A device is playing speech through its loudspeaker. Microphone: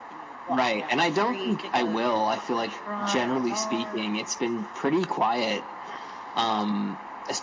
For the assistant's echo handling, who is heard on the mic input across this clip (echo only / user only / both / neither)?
echo only